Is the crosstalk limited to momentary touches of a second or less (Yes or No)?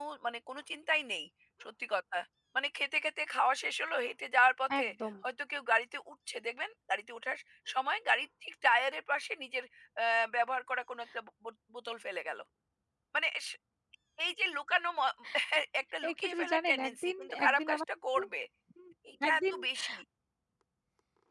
No